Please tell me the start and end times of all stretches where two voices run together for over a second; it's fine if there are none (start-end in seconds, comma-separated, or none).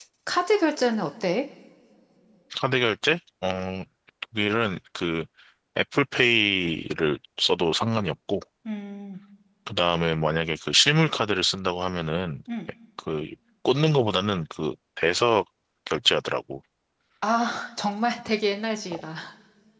none